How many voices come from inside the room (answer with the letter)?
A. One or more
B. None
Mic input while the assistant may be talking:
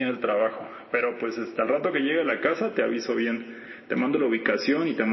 B